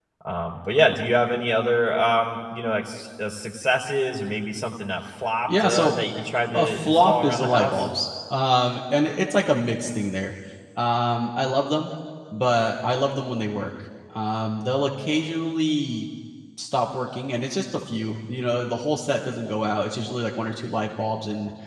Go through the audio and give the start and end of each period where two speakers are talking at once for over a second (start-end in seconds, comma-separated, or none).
6.5-7.8